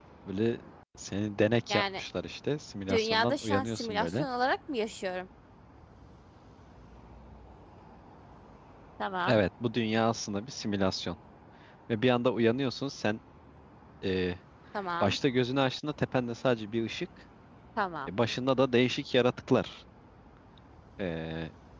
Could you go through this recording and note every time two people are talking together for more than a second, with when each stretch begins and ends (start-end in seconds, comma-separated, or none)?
2.9-4.3